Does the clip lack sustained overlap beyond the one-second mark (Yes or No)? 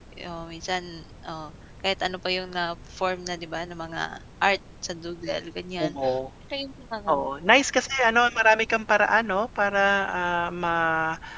Yes